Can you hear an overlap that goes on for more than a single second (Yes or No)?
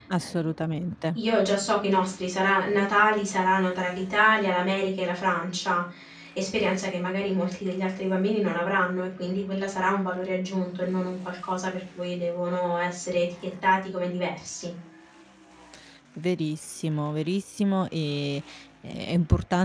No